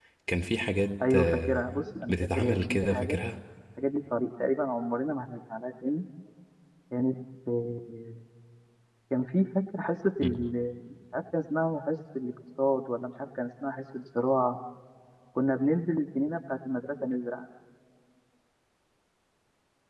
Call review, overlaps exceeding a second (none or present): present